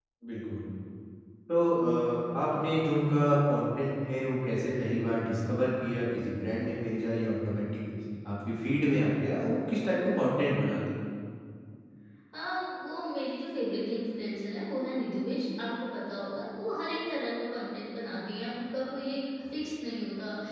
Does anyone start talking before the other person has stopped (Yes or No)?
No